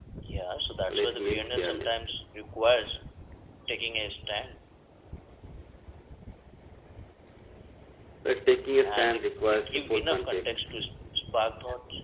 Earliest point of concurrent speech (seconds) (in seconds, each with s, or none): 0.9 s